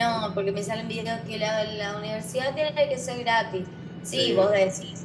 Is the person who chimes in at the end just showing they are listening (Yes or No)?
Yes